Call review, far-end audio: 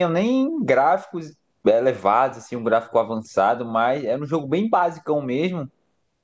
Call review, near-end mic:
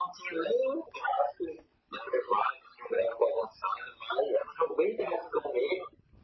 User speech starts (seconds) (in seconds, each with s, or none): none